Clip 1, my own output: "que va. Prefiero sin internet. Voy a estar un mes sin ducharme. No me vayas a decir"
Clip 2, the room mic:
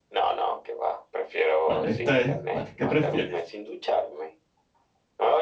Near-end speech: present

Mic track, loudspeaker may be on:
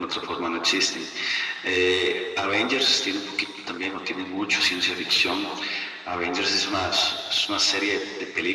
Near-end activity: none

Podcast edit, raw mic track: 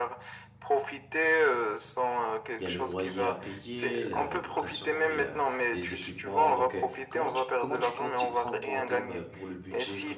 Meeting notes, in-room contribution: present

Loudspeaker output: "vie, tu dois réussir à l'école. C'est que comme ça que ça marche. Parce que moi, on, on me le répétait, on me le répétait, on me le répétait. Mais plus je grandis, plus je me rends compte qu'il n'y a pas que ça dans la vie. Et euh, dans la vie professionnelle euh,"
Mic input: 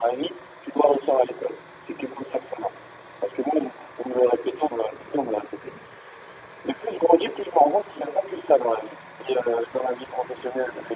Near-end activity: none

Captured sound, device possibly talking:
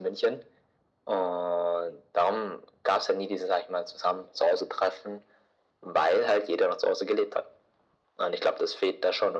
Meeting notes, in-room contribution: none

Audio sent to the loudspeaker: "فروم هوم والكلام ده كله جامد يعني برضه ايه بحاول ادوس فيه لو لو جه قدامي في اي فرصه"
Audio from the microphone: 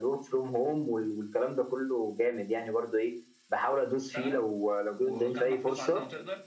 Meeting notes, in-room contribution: present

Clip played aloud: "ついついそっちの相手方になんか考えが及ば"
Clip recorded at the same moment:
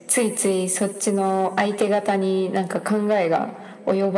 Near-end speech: none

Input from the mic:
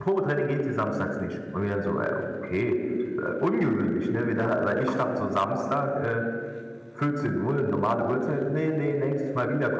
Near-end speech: present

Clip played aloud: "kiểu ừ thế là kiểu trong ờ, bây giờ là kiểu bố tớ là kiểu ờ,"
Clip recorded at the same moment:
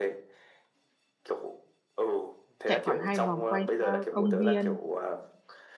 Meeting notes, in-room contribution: present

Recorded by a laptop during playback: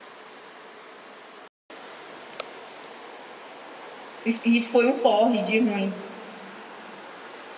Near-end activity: present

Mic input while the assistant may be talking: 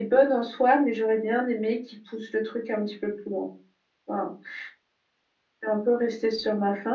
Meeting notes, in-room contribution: none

